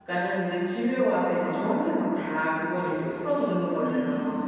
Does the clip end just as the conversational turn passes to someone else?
Yes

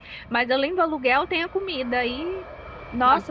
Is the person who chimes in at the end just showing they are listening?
Yes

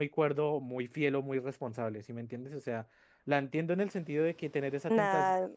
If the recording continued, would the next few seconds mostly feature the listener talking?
No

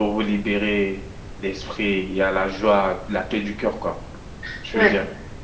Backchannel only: No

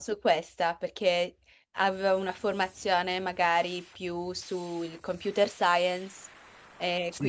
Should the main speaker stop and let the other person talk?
Yes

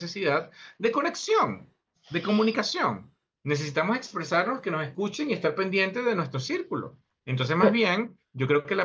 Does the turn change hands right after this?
No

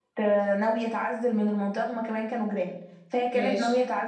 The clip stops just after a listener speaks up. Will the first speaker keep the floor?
Yes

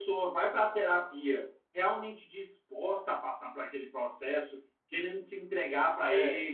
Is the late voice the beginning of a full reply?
No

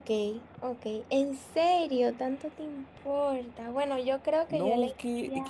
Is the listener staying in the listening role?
No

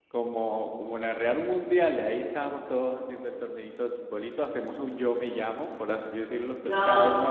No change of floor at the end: No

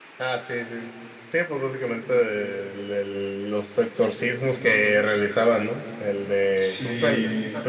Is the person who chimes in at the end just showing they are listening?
Yes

